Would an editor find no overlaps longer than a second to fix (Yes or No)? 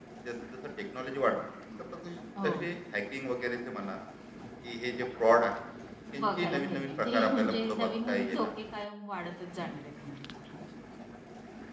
No